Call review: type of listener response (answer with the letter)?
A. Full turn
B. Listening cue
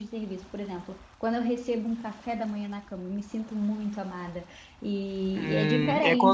A